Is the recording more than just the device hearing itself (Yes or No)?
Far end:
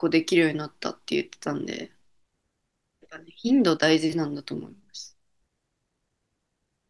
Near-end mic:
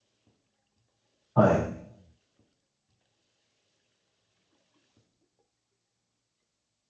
Yes